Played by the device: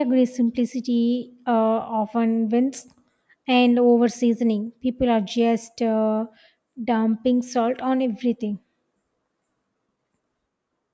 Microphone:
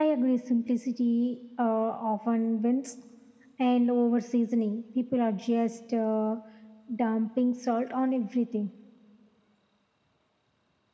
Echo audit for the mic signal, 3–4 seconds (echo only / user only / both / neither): echo only